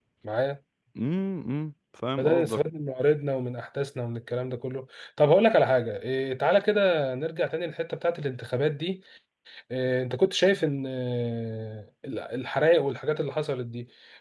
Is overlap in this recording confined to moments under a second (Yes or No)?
Yes